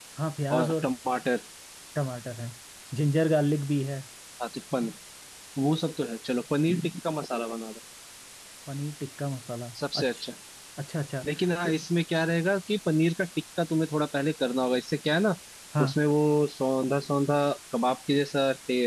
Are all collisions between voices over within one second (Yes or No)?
Yes